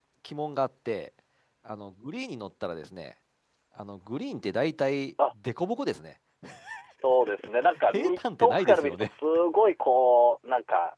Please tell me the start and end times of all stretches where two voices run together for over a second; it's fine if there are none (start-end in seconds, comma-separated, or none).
7.9-9.1